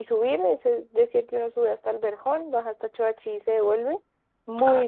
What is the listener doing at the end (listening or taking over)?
taking over